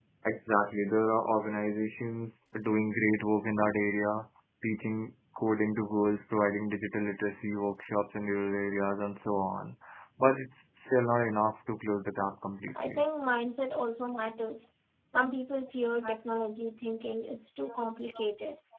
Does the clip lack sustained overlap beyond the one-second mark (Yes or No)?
Yes